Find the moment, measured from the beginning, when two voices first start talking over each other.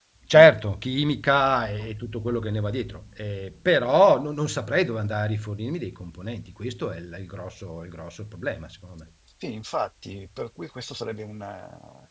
none

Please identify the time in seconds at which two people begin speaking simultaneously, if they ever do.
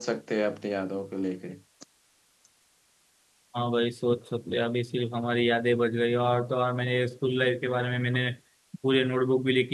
none

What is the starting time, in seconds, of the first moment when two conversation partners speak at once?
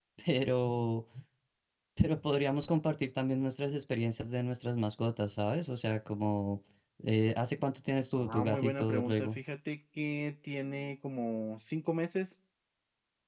8.2 s

